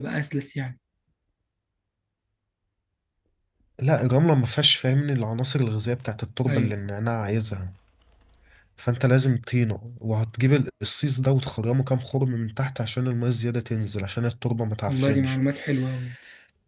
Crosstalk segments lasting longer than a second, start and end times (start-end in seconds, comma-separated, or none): none